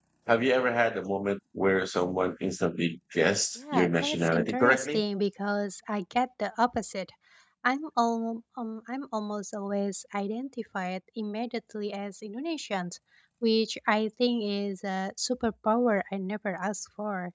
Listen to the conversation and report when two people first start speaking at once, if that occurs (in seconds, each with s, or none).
3.6 s